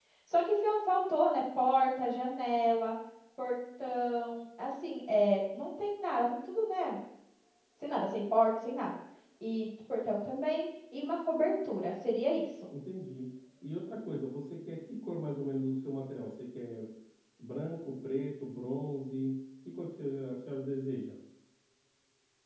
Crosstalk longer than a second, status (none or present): none